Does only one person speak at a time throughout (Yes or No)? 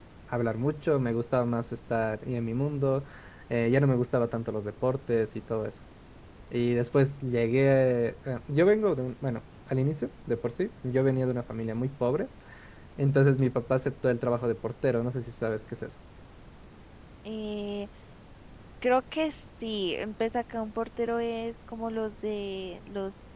Yes